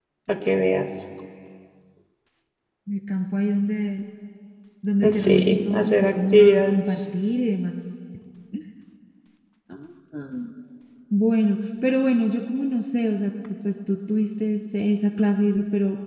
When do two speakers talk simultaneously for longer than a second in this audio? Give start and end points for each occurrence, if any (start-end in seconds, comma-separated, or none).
5.1-7.0